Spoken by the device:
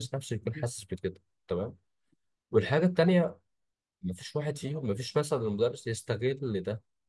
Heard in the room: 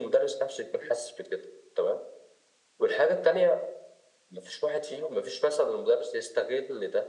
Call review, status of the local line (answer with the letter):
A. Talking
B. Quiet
B